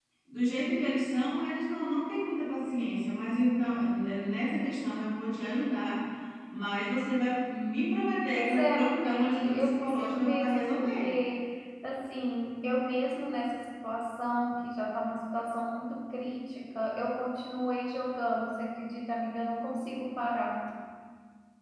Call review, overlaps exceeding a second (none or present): present